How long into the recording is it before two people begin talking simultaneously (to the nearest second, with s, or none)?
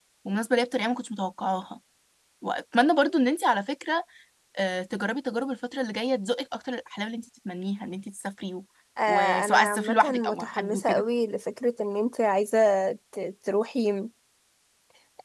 9 s